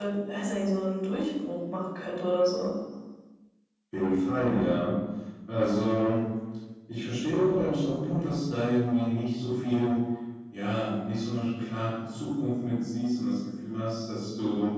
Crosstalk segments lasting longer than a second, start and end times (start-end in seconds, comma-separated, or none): none